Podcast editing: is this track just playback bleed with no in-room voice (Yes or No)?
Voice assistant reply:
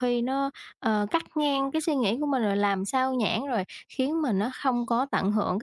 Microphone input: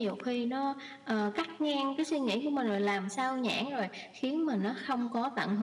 Yes